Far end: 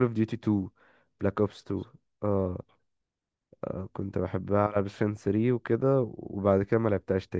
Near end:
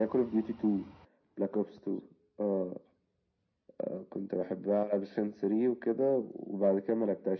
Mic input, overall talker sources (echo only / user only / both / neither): echo only